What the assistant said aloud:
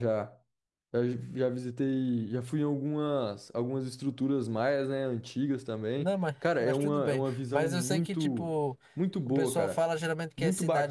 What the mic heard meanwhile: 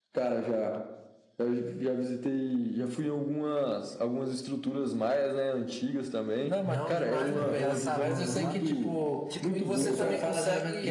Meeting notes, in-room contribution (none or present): present